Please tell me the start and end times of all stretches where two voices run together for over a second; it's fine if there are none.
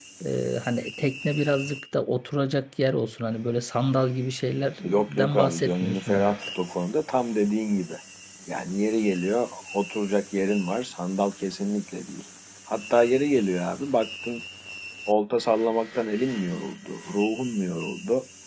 4.8-6.4

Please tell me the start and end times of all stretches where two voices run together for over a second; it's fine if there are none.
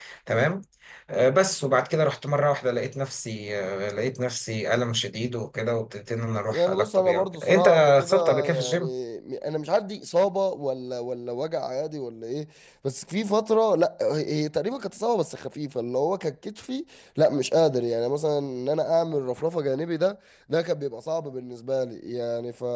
6.5-8.9

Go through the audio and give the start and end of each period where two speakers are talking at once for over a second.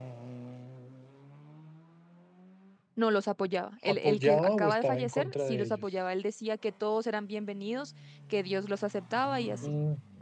3.9-5.8

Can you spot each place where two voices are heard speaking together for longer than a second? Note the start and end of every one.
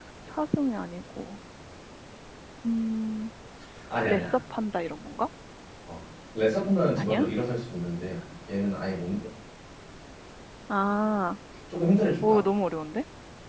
none

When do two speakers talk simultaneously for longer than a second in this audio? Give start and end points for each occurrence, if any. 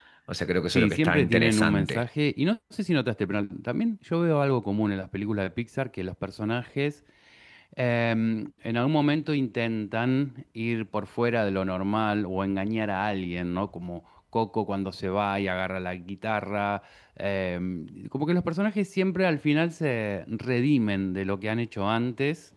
0.7-2.0

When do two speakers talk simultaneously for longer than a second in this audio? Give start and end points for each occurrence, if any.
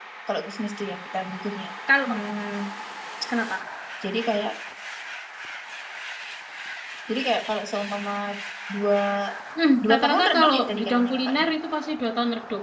9.8-11.4

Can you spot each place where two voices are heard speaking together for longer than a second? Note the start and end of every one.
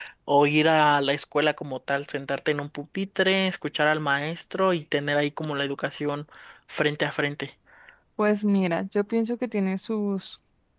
none

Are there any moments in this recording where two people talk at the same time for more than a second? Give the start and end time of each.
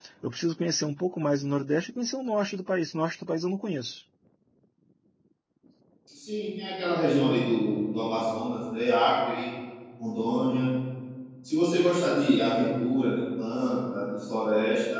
none

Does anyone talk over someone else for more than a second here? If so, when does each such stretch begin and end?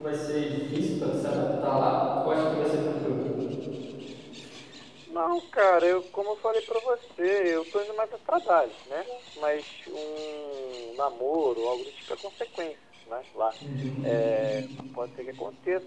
none

